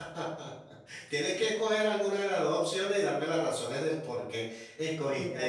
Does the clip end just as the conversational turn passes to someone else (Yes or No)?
Yes